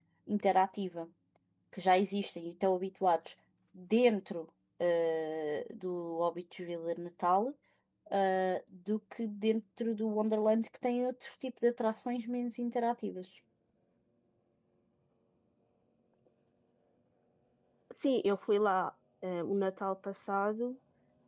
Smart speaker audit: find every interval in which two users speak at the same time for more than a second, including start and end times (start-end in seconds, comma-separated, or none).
none